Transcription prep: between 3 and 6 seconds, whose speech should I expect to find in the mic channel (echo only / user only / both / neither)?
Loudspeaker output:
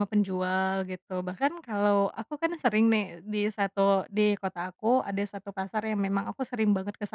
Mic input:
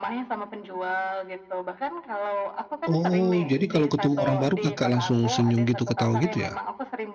both